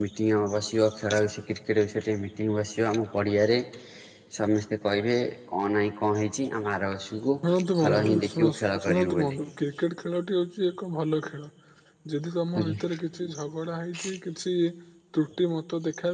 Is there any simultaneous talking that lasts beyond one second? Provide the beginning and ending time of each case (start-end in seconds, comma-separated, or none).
7.8-9.3